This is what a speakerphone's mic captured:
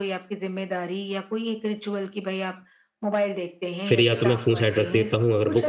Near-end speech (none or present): present